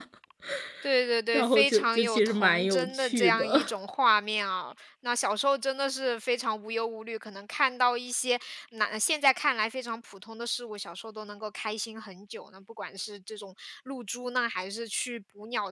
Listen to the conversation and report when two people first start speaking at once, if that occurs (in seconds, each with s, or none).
1.3 s